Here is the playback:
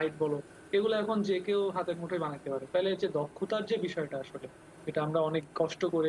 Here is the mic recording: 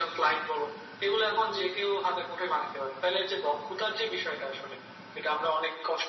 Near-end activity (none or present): none